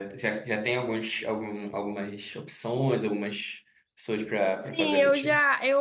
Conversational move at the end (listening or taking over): taking over